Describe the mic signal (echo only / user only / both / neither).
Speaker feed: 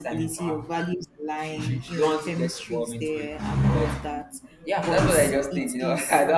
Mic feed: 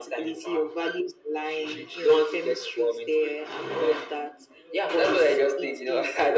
echo only